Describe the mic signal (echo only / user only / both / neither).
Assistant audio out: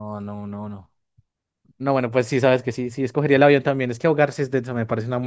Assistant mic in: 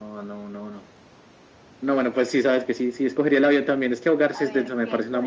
both